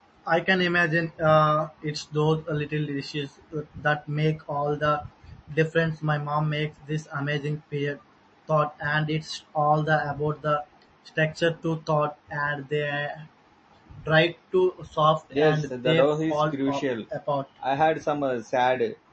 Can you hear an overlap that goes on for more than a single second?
Yes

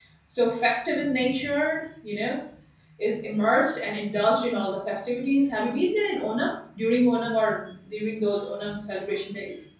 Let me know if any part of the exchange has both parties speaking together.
No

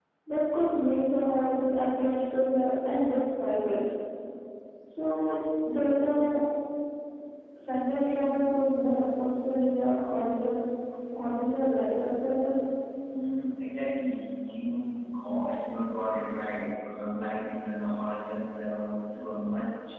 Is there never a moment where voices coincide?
Yes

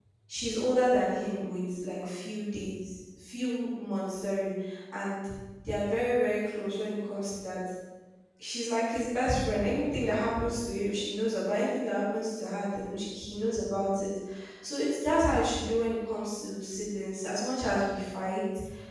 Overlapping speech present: No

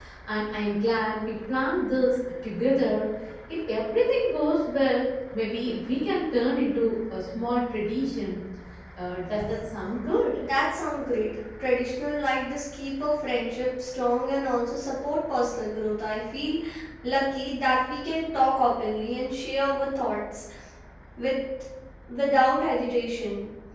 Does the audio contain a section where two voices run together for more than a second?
No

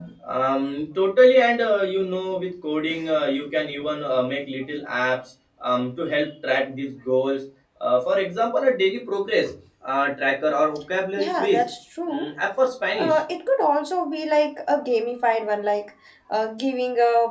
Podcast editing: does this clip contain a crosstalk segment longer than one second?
No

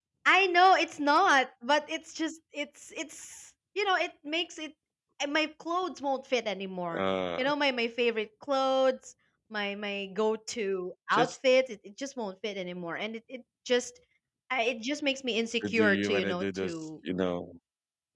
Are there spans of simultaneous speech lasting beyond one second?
Yes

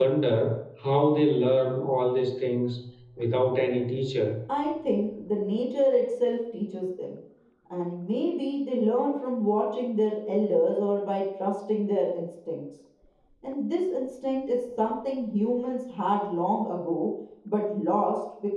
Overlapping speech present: No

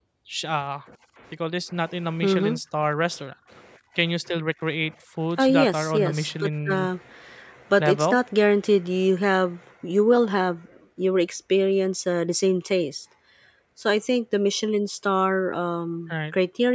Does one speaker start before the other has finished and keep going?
Yes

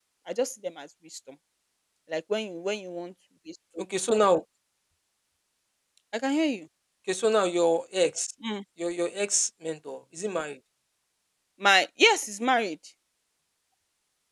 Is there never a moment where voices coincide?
Yes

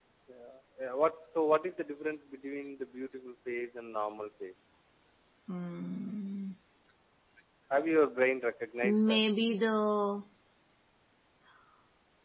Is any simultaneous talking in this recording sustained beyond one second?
No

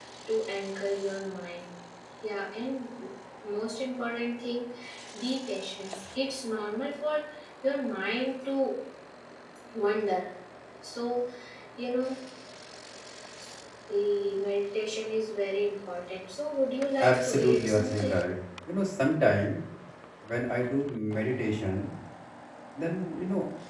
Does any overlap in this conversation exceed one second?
Yes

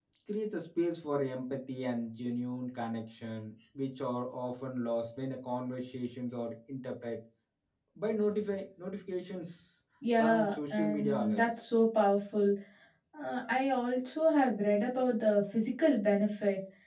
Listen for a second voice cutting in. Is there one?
Yes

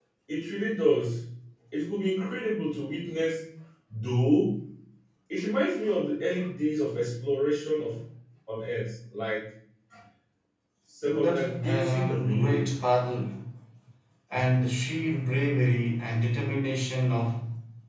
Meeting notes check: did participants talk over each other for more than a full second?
Yes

